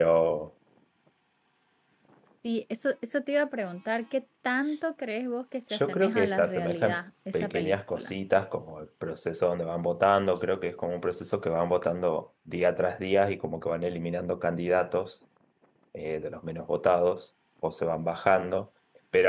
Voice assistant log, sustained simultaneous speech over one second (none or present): present